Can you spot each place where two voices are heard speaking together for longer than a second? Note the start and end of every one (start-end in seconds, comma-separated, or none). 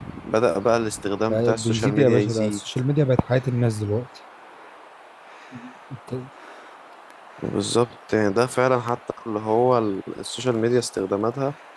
1.3-2.6